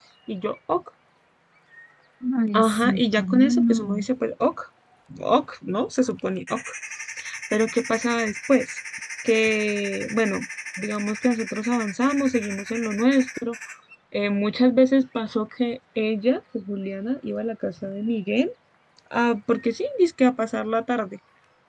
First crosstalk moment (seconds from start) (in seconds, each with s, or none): 2.5 s